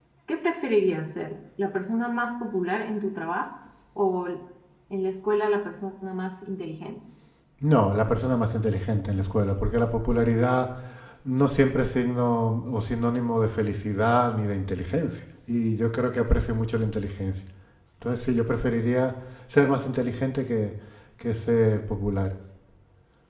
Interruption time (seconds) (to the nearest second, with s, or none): none